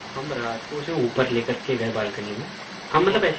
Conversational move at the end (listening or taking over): listening